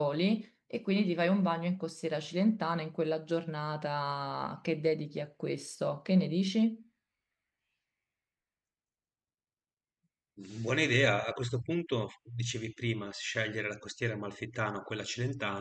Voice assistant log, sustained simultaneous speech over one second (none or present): none